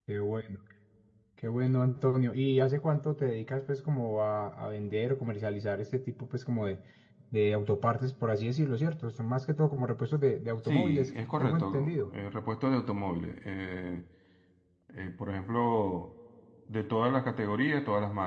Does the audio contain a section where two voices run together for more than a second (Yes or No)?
Yes